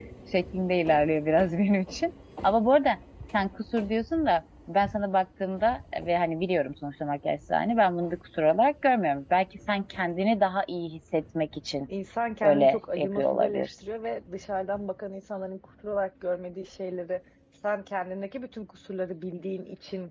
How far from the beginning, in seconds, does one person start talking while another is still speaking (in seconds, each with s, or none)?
12.4 s